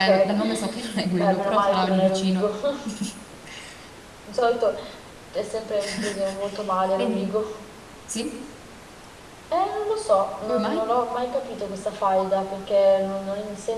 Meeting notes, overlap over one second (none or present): present